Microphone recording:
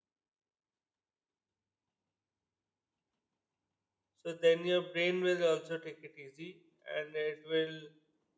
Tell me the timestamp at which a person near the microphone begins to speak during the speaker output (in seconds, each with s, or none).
4.1 s